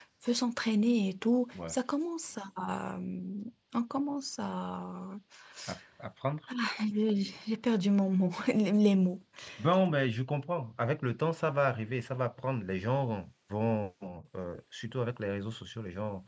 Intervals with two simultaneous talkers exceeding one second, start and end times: none

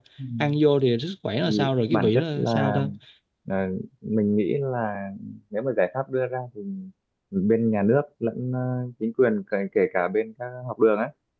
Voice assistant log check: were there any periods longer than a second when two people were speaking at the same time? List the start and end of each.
1.4-2.8

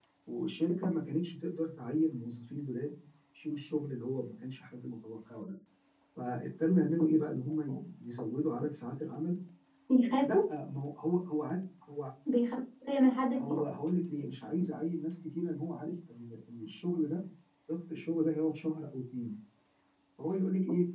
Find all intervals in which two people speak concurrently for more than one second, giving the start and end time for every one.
none

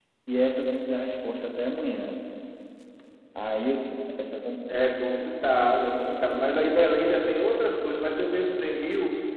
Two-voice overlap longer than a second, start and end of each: none

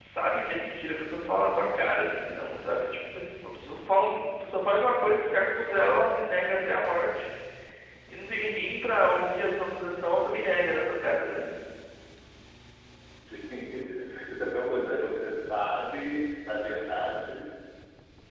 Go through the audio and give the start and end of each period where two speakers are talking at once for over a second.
none

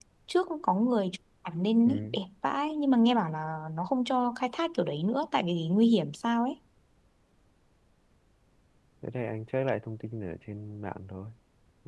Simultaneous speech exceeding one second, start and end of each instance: none

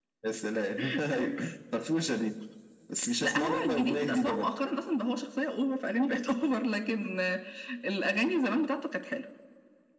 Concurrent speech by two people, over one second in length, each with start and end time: 3.2-4.6

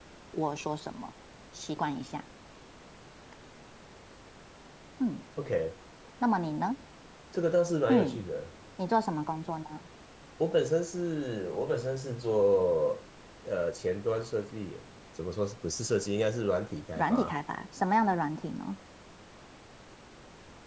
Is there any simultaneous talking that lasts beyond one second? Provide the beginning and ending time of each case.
none

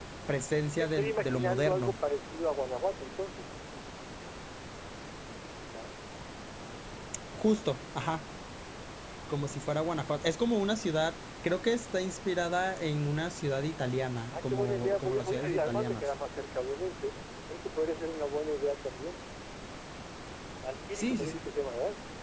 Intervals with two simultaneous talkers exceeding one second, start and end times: 0.7-2.0, 14.3-16.0

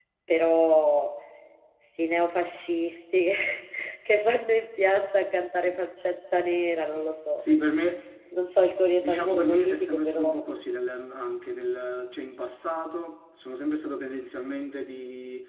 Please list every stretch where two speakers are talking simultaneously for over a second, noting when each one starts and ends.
9.0-10.2

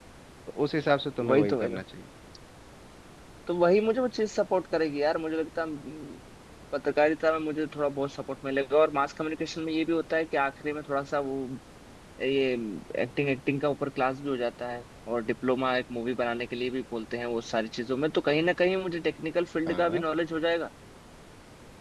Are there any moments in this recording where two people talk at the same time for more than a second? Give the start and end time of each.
none

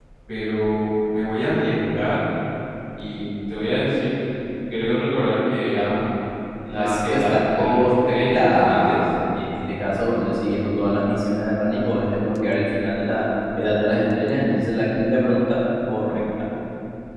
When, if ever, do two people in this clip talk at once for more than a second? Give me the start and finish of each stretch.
6.8-9.0

